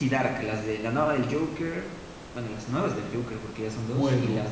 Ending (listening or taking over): taking over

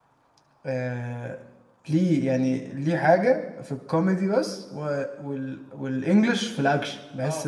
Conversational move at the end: taking over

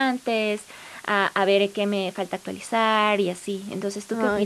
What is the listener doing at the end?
taking over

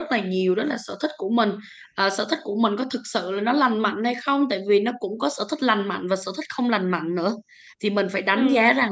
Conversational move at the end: listening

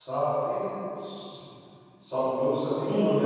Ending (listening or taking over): listening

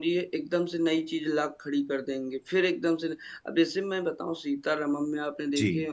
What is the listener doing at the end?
listening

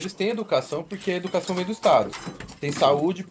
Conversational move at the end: listening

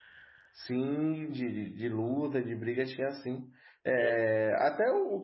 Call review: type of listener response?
listening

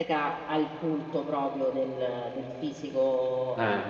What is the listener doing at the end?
listening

